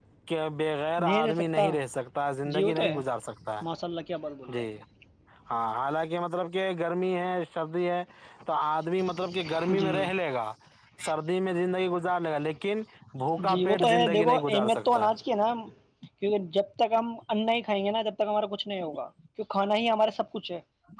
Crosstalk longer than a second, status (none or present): present